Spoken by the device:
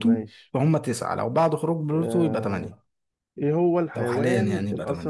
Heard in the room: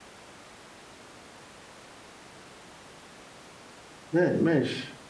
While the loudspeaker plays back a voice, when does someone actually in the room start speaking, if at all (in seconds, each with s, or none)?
4.1 s